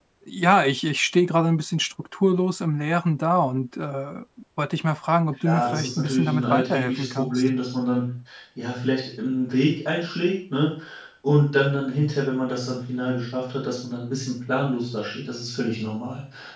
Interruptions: present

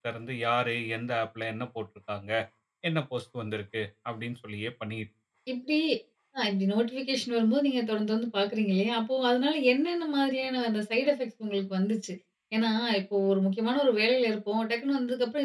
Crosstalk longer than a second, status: none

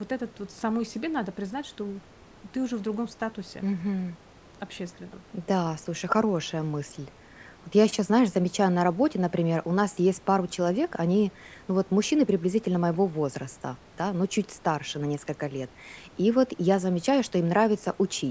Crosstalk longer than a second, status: none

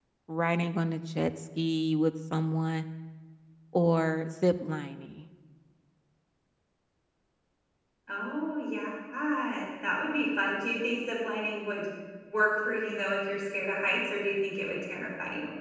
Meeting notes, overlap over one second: none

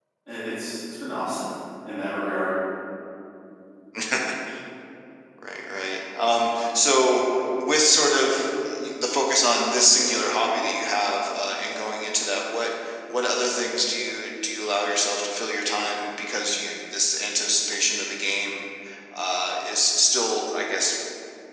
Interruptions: none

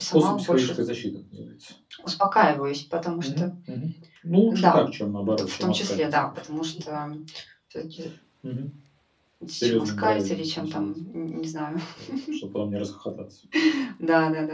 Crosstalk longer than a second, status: present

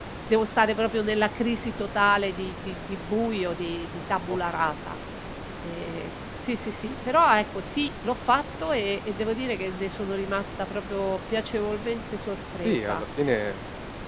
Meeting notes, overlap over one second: none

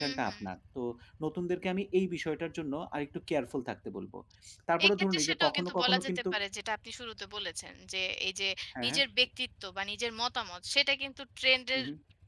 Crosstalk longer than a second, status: present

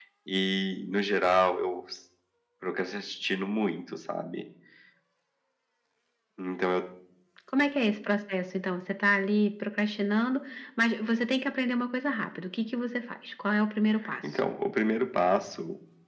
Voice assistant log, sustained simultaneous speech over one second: none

